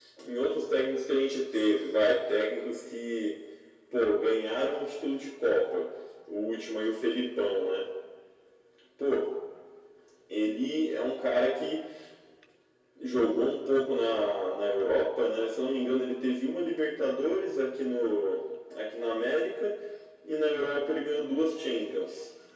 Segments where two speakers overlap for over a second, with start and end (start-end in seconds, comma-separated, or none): none